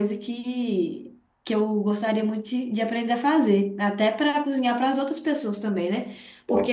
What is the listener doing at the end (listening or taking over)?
listening